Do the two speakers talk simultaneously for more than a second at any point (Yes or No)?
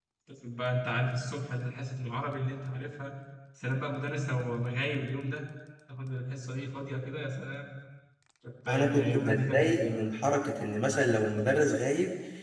Yes